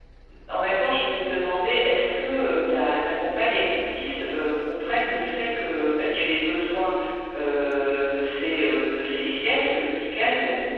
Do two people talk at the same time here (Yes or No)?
No